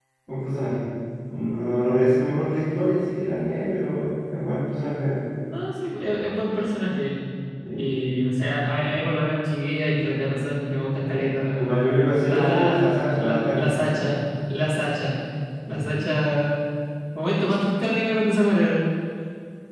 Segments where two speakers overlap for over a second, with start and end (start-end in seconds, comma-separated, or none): 12.3-13.8